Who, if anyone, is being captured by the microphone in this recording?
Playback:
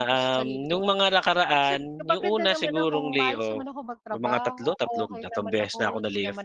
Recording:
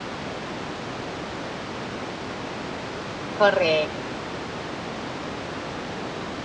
user only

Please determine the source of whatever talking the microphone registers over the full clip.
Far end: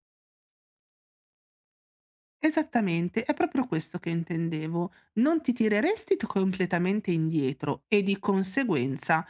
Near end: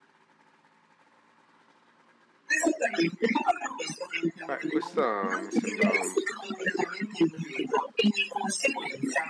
both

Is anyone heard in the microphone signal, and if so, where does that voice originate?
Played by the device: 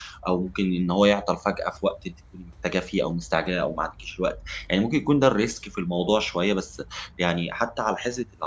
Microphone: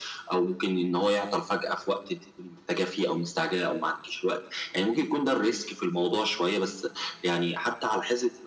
echo only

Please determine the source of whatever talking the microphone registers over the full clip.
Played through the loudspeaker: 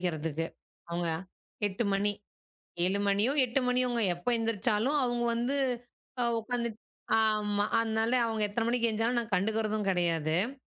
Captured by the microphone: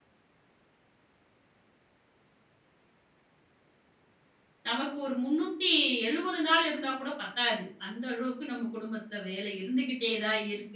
user only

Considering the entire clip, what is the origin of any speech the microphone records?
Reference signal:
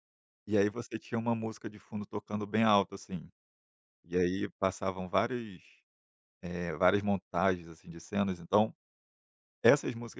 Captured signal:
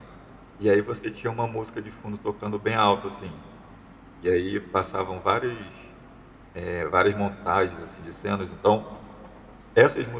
echo only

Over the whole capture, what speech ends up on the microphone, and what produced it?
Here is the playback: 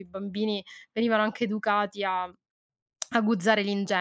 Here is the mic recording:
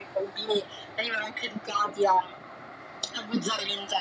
echo only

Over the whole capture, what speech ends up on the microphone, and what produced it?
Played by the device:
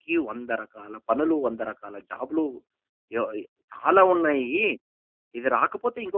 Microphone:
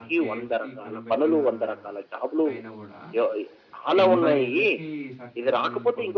both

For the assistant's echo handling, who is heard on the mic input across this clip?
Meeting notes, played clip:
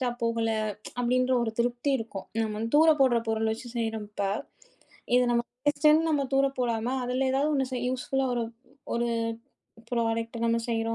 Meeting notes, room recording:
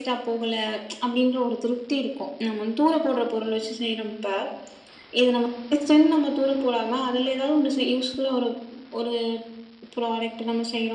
echo only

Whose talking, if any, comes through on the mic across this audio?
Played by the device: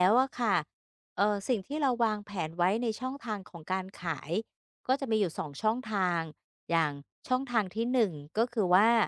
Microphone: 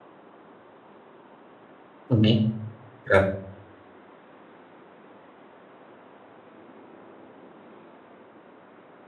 user only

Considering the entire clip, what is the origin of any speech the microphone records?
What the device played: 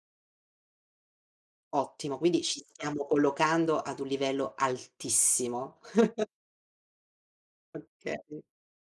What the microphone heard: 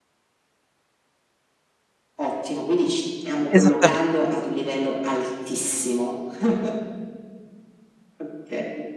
both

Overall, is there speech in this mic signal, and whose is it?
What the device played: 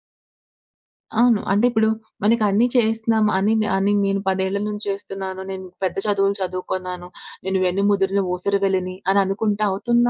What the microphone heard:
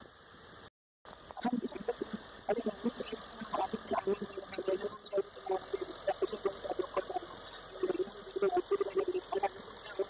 echo only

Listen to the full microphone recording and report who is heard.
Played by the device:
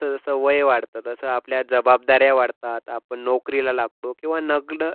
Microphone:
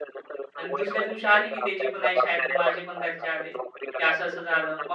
both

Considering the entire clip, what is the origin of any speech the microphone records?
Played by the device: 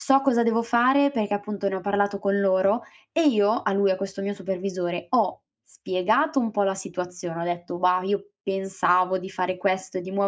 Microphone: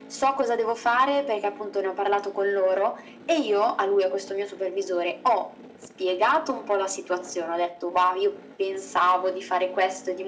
echo only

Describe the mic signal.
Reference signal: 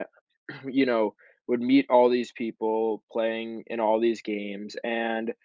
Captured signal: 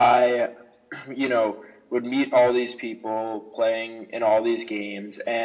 echo only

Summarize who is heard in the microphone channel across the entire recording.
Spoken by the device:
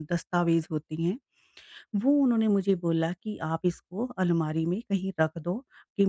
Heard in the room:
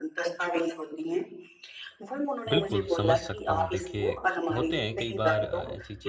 both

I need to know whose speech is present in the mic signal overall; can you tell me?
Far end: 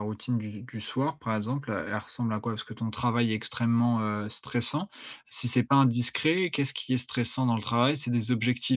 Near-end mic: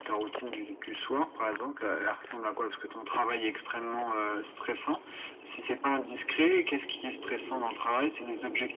echo only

